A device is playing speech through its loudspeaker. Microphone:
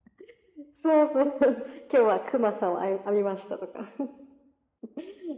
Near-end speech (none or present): none